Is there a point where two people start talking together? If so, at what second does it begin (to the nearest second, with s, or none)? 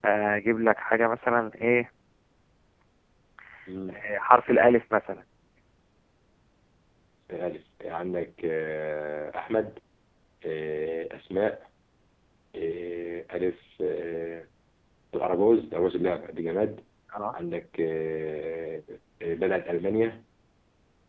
none